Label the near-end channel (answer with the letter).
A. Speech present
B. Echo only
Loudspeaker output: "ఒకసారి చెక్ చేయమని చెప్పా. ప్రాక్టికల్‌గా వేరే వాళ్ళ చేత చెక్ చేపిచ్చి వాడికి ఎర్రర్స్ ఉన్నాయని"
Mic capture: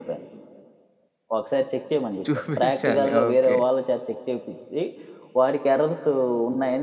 A